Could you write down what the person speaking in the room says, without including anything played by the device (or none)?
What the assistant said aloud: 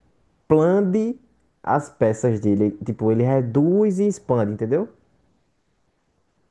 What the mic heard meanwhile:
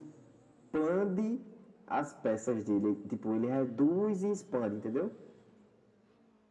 none